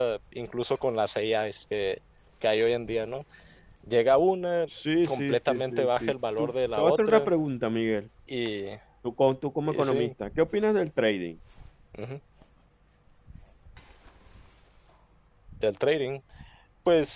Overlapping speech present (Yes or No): Yes